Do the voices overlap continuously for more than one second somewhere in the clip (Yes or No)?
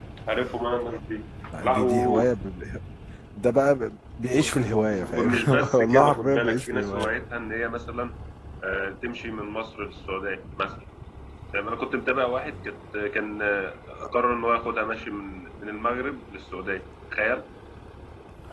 Yes